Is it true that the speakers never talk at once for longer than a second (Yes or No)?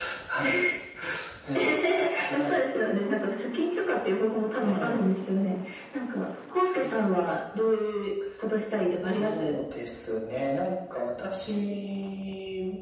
Yes